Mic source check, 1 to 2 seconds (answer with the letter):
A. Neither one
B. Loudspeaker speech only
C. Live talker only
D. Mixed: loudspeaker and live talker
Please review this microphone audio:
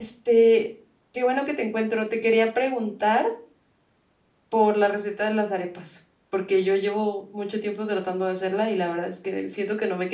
C